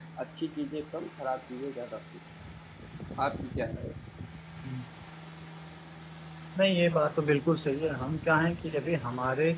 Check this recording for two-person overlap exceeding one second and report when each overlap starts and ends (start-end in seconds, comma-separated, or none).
none